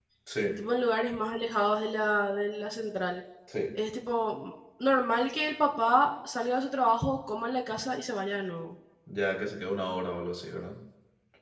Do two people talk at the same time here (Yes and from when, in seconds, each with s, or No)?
No